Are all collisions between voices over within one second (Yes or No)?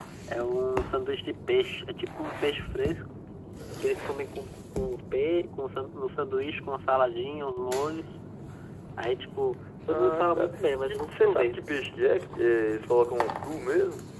No